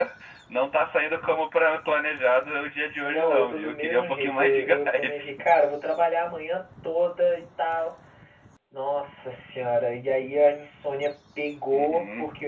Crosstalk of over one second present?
Yes, from 3.0 s

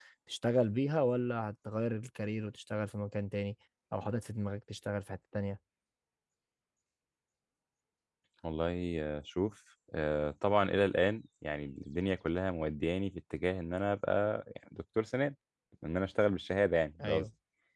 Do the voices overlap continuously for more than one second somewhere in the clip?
No

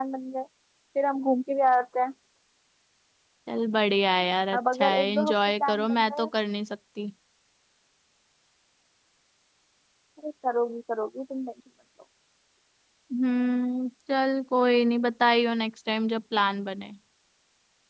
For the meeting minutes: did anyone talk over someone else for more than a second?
Yes, from 4.5 s

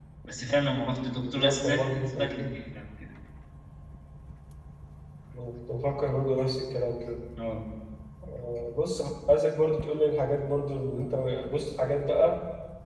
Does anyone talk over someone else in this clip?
Yes, from 1.2 s

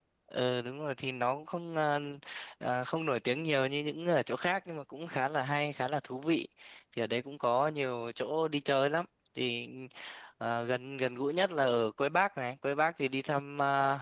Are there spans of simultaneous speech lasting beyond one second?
No

